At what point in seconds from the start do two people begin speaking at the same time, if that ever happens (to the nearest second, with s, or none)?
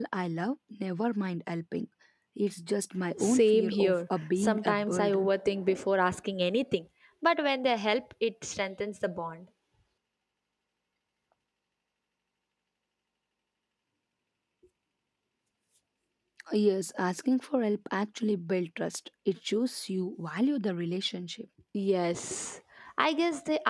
3 s